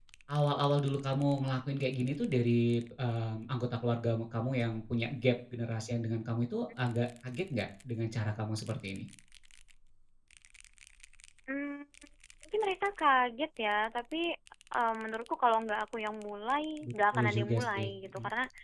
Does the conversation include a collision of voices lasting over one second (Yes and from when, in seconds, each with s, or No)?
Yes, from 16.8 s